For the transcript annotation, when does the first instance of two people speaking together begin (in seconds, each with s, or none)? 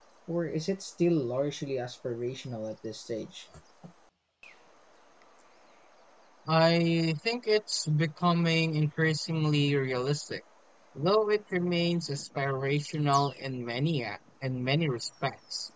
none